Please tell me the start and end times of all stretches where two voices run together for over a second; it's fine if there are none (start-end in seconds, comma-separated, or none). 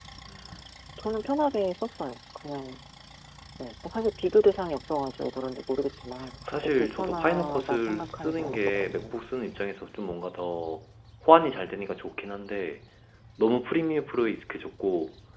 6.5-9.2